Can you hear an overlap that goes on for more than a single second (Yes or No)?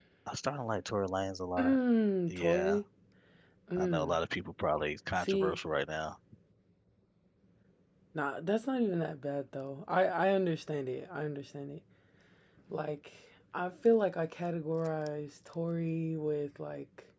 No